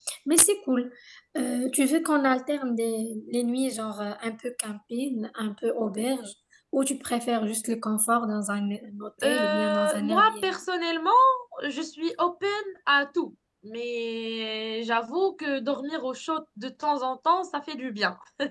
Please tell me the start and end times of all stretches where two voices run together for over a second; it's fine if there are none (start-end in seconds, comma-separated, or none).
9.2-10.6